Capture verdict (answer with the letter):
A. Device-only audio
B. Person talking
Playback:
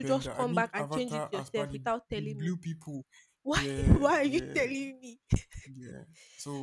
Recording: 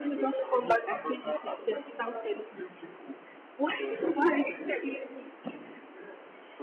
A